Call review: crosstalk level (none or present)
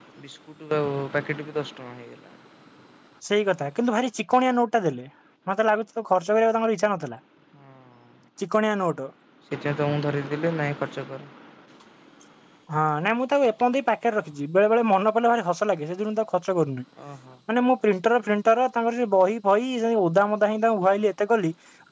none